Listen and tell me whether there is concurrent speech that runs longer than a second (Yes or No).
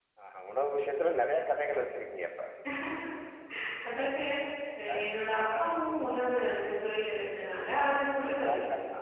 No